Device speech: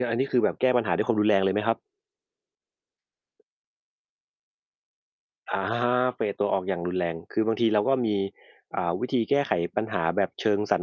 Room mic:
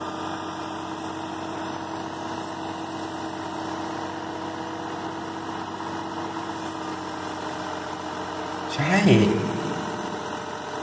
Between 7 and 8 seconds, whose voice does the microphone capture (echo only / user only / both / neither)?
neither